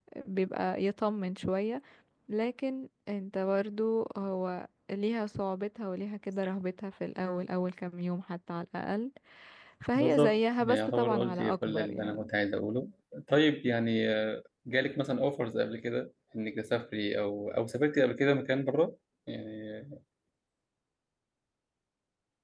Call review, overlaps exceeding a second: present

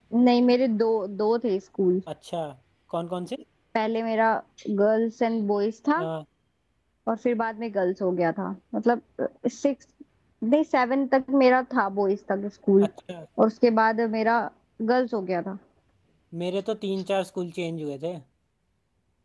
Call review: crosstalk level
none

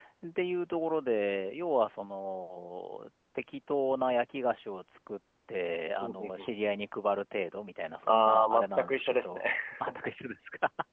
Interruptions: present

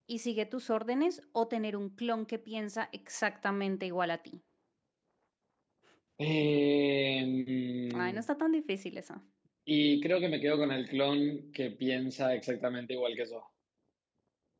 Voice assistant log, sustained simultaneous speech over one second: none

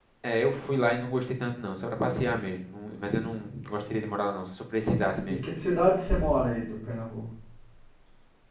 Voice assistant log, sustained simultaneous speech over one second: none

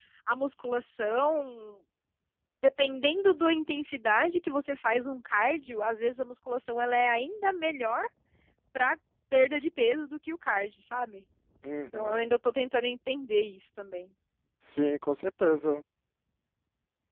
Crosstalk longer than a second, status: none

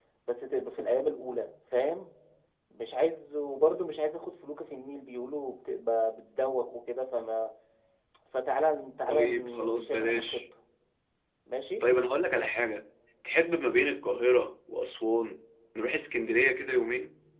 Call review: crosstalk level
present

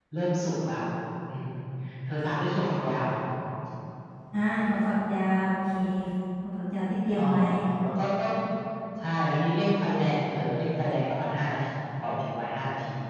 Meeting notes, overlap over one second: none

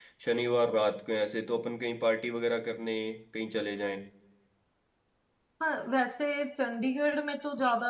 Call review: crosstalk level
none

